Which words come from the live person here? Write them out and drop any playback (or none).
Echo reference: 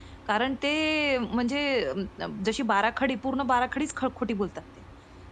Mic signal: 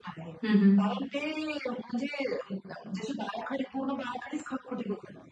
हं, हं.